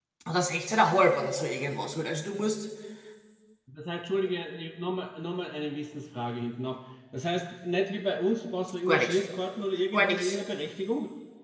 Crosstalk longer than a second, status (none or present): none